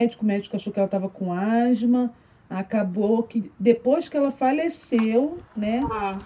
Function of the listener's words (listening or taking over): listening